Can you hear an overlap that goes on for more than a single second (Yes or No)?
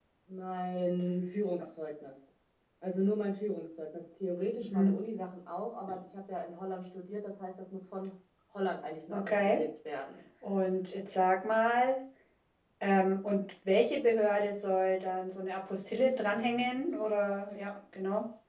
No